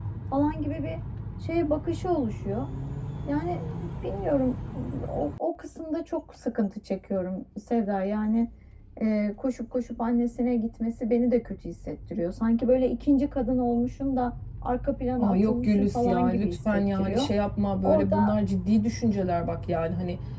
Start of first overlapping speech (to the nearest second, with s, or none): 15 s